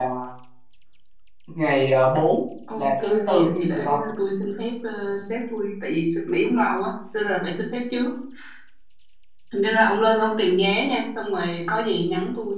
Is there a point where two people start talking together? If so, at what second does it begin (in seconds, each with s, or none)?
2.8 s